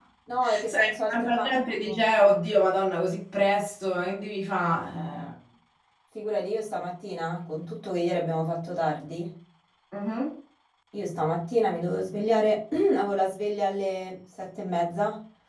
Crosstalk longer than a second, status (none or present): present